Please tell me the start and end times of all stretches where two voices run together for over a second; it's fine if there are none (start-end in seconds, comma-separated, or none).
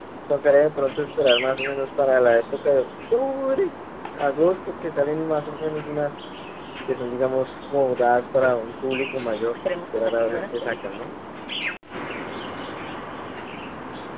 9.7-11.1